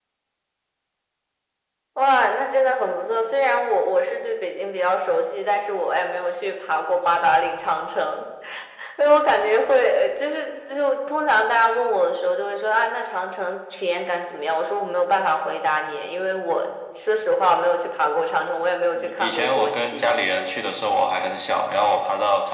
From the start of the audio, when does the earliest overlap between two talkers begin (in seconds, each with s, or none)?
18.9 s